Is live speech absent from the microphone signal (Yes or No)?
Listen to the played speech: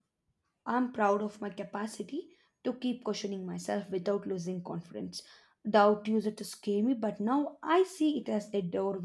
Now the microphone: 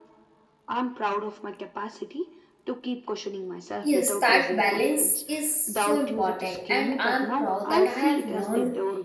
No